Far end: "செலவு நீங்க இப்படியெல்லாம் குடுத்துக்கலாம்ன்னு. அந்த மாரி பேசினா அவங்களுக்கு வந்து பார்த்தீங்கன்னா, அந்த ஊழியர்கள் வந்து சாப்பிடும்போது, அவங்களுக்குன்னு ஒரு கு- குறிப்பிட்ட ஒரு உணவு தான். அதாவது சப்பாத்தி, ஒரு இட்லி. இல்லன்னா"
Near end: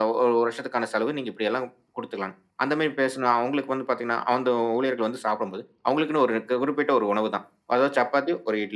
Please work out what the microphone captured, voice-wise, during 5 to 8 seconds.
echo only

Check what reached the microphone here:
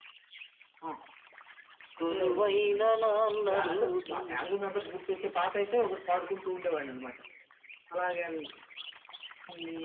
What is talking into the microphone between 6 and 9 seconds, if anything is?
echo only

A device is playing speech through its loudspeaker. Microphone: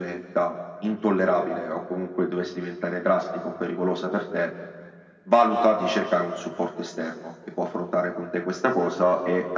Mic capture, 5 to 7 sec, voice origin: echo only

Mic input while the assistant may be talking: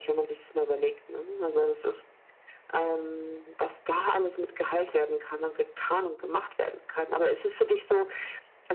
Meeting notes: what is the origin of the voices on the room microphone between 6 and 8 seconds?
echo only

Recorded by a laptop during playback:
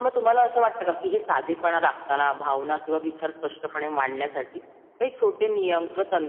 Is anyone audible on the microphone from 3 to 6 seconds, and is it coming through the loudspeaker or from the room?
echo only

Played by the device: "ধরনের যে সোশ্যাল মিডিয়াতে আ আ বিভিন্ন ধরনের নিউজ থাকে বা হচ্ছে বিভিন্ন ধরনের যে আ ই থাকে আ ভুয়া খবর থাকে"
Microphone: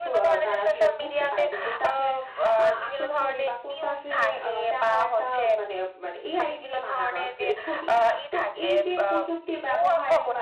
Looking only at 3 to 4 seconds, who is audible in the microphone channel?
both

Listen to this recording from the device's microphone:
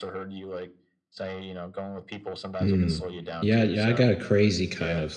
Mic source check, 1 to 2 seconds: echo only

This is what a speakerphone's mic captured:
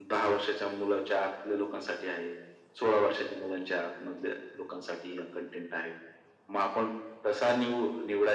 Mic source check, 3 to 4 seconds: echo only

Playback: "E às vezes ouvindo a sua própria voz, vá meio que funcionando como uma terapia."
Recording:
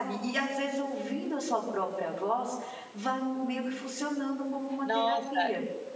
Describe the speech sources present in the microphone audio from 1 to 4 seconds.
echo only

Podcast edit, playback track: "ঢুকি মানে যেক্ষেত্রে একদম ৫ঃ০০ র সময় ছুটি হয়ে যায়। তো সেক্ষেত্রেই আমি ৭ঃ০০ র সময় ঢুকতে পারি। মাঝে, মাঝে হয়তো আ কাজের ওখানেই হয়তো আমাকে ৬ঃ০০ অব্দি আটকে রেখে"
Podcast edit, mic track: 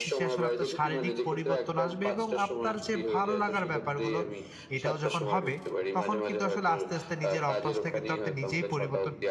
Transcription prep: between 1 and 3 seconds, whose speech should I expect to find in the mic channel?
both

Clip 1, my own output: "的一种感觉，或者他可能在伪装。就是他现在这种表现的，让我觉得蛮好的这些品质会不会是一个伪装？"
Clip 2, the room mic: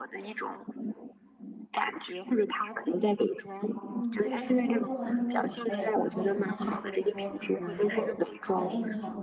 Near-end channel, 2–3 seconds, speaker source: echo only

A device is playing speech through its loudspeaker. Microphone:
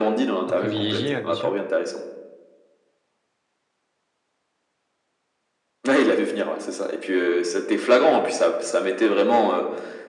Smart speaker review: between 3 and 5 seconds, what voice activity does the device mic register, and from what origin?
neither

